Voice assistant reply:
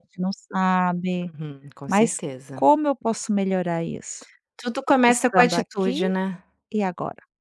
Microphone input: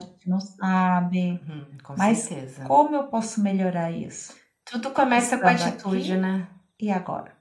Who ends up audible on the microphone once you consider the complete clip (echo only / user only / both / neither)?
echo only